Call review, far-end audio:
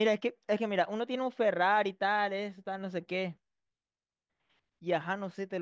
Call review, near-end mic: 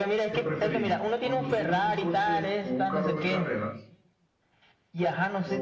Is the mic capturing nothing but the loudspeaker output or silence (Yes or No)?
No